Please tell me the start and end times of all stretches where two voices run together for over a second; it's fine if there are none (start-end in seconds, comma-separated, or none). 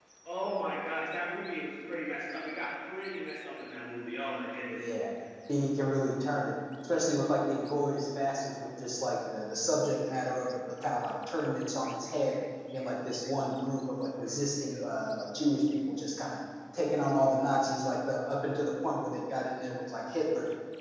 none